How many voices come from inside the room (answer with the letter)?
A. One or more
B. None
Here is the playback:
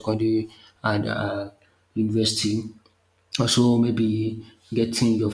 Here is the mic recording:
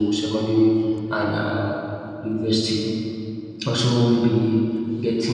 B